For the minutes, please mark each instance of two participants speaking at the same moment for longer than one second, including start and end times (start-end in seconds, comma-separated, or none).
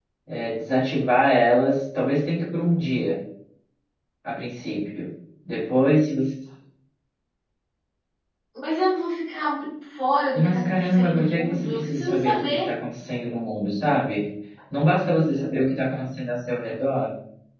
10.3-12.7